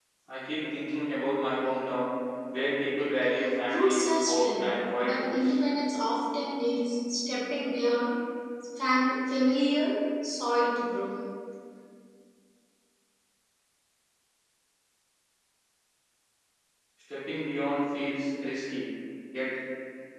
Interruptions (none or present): present